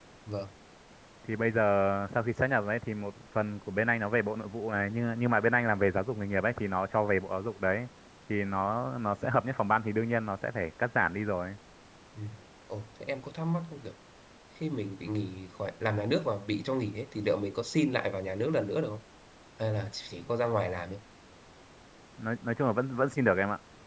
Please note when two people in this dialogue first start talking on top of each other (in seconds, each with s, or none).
none